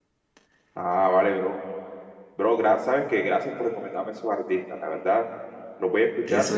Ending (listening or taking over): listening